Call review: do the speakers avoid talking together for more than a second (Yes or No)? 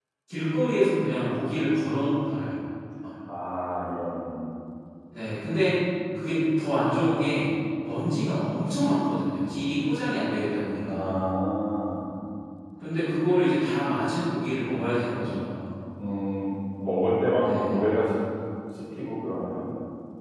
Yes